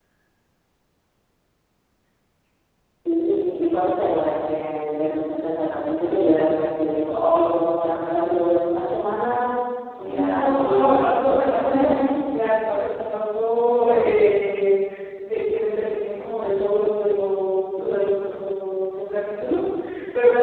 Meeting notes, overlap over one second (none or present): present